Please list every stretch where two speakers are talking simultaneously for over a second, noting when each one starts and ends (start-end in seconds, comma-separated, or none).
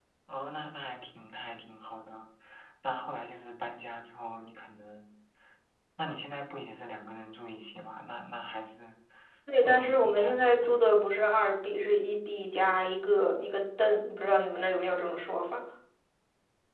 9.6-10.9